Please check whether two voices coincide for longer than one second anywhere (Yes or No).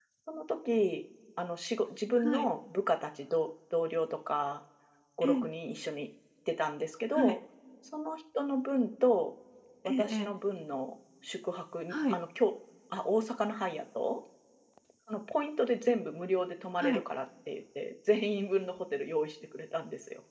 No